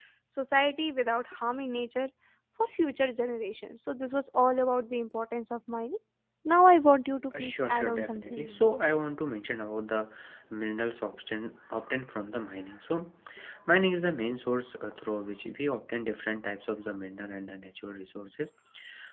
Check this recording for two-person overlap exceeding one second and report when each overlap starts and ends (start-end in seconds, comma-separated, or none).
7.4-8.6